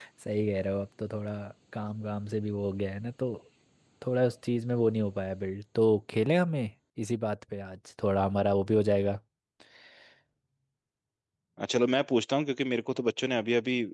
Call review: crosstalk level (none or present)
none